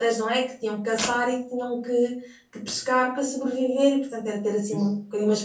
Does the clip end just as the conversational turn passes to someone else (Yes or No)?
No